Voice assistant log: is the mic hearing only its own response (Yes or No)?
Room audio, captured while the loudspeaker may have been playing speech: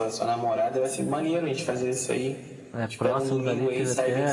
No